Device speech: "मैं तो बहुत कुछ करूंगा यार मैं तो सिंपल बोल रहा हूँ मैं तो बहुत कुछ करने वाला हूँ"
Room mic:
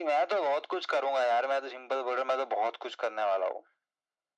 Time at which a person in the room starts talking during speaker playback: none

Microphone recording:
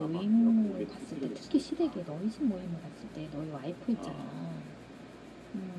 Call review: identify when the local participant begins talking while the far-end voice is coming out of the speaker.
none

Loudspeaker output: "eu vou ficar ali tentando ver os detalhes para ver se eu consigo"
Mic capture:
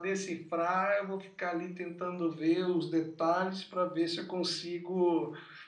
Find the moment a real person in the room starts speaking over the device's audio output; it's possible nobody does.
none

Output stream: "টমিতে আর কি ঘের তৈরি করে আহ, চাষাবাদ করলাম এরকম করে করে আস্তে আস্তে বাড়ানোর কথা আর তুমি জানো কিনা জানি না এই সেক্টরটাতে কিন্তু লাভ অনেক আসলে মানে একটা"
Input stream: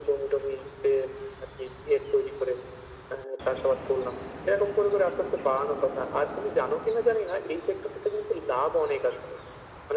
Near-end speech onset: none

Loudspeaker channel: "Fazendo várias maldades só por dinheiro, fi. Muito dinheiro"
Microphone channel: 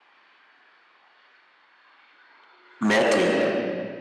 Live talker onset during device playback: 3 s

